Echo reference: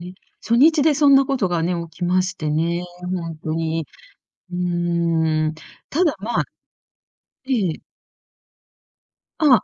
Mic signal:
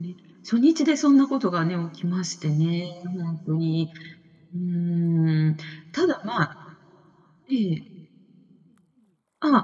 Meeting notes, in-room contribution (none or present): none